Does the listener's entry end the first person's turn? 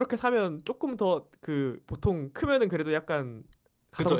Yes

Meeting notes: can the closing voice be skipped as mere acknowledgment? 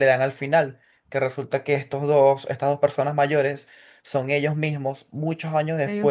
Yes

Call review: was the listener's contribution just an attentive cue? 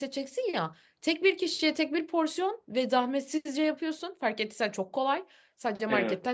Yes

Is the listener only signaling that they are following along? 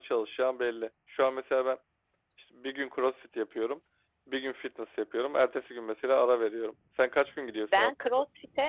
No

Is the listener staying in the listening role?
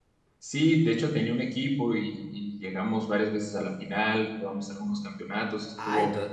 No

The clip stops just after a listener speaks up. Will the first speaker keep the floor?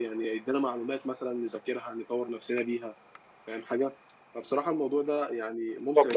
Yes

